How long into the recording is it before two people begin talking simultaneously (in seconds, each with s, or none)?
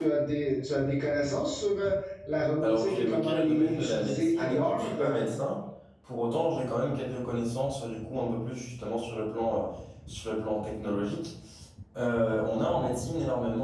2.6 s